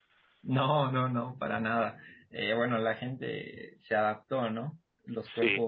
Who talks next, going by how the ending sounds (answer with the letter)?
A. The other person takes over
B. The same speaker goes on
B